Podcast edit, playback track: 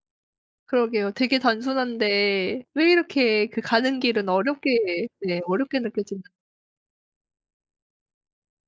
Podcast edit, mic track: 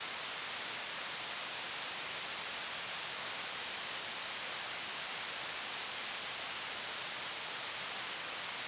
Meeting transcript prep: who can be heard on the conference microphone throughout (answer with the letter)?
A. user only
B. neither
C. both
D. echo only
B